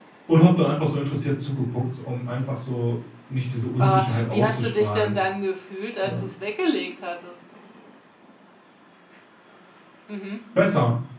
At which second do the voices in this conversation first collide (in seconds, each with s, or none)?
3.8 s